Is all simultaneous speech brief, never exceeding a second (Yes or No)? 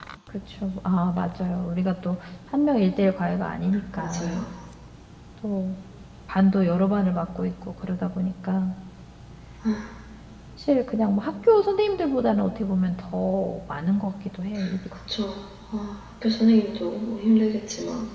Yes